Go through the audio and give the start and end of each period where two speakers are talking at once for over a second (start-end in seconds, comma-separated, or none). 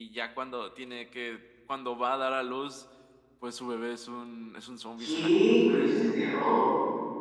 5.0-6.2